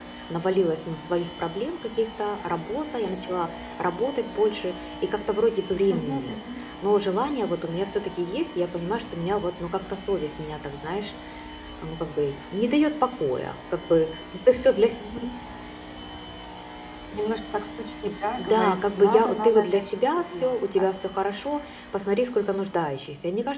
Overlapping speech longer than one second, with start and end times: 18.4-20.9

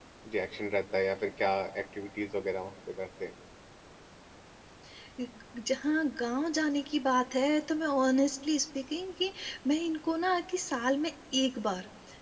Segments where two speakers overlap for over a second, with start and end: none

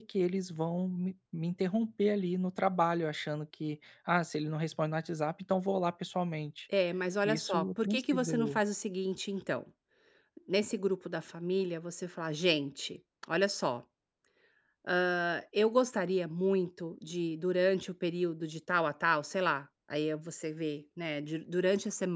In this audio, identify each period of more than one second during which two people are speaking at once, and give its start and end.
7.2-8.6

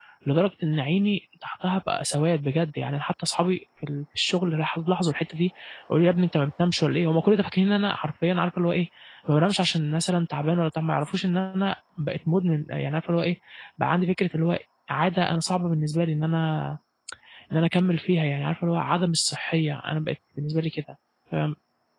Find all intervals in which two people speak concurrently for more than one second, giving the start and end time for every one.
none

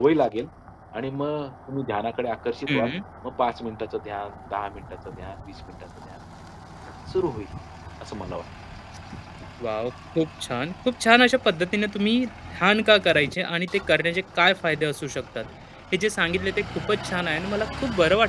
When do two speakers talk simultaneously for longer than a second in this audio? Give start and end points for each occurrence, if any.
none

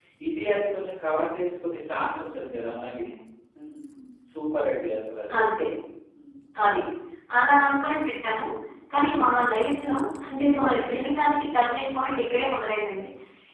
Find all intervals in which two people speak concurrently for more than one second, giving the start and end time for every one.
none

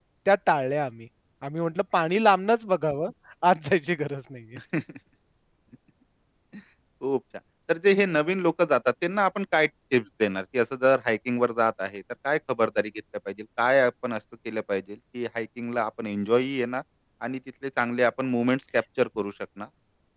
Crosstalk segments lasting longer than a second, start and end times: none

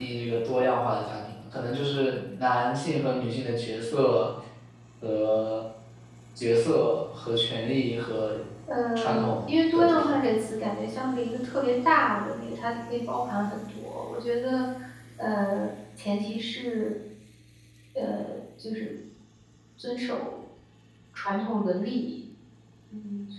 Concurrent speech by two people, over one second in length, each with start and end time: 9.0-10.2

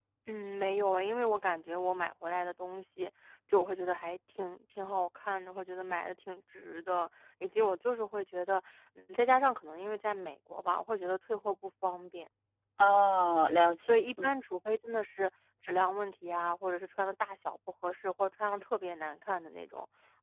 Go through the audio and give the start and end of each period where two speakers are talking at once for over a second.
none

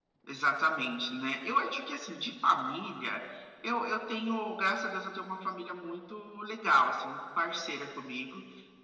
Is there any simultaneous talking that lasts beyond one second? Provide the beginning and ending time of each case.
none

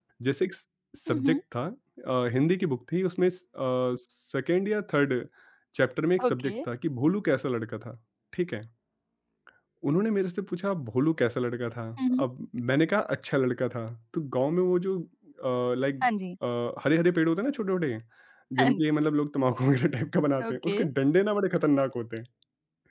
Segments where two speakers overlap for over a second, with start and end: none

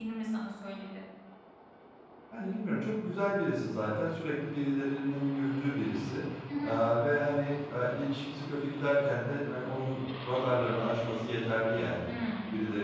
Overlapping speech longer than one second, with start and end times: none

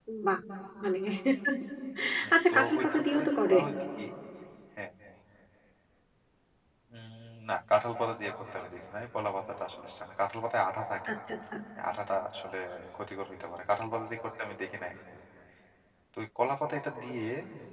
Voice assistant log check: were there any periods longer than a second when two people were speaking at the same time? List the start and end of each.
2.3-3.6

